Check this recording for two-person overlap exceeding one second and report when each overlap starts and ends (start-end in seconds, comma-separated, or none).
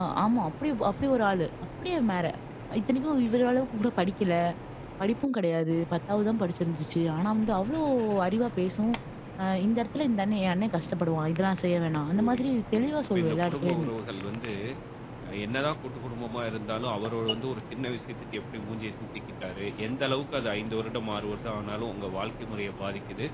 12.2-13.9